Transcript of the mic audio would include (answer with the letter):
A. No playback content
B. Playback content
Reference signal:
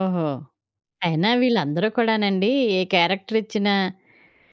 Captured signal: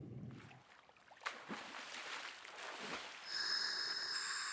A